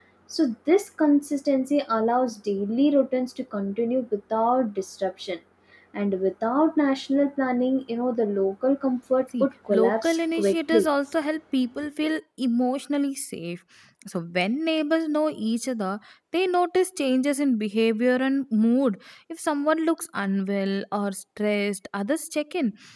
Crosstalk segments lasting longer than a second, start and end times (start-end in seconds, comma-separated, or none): 9.4-10.9